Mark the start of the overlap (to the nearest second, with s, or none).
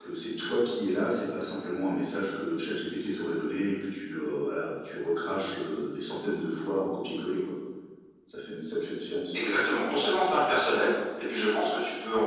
none